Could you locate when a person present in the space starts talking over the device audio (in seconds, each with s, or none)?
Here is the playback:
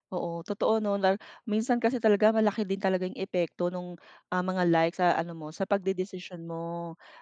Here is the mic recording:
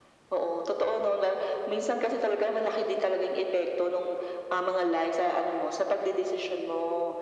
none